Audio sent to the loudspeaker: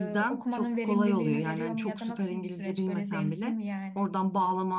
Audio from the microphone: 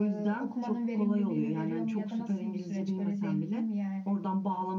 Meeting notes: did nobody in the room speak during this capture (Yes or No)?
Yes